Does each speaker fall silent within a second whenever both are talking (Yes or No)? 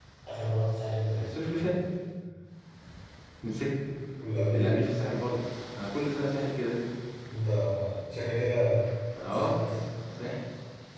Yes